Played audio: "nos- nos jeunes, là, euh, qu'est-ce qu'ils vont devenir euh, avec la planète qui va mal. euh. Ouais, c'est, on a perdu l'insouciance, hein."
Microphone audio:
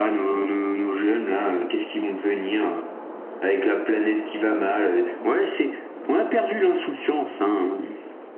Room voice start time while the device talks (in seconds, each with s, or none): none